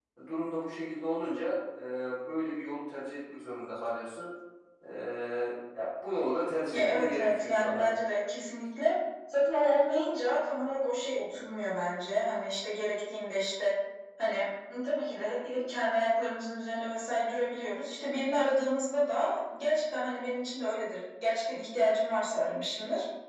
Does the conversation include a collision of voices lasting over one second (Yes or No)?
Yes